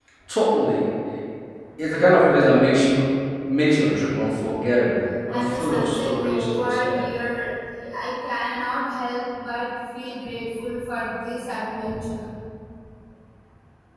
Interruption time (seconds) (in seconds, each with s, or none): 5.3 s